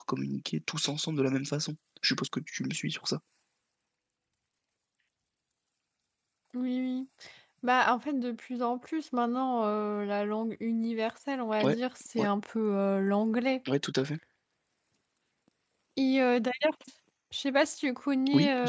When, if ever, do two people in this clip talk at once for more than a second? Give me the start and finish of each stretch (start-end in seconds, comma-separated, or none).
none